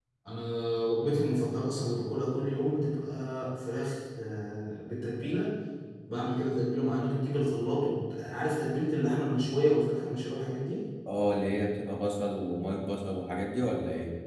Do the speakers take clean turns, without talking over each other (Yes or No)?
Yes